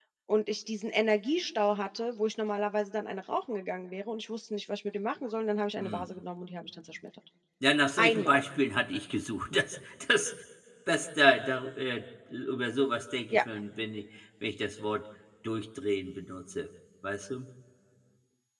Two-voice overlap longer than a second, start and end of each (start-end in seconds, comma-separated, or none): none